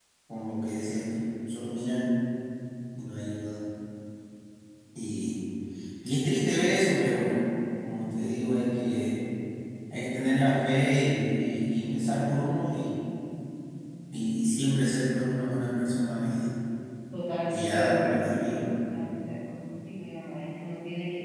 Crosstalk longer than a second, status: present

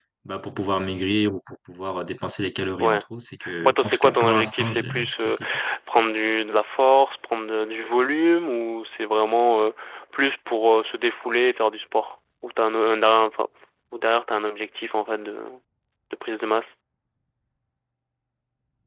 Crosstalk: present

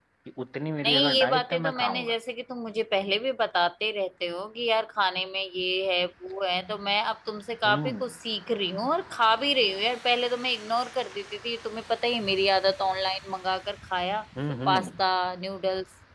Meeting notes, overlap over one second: present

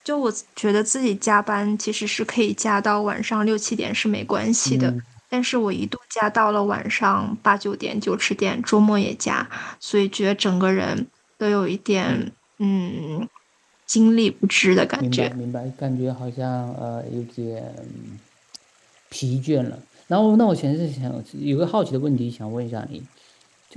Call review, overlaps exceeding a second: none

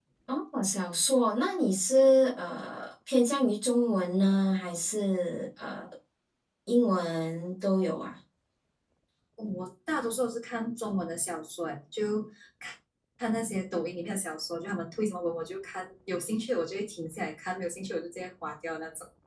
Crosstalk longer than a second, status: none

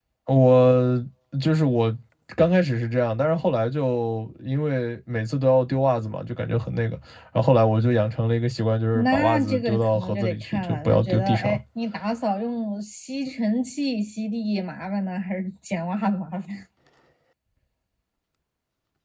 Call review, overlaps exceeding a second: present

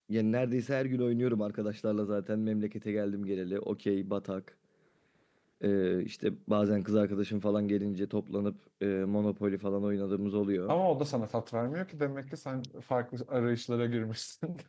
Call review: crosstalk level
none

